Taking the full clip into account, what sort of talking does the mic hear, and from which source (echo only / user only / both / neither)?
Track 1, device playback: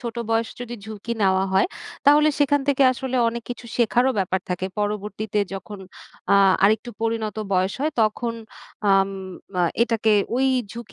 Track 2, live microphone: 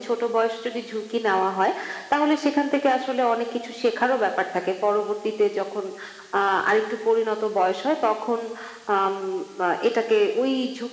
echo only